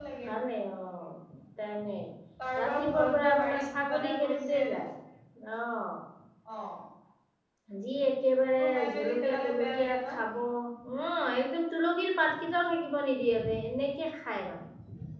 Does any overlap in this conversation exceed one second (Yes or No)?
Yes